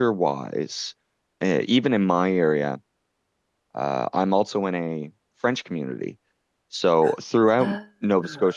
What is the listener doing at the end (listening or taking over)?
listening